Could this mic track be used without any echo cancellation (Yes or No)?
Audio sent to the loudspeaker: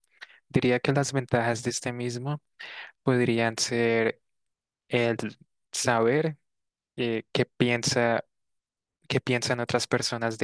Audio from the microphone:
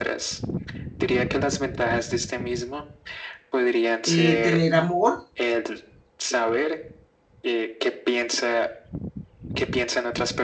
No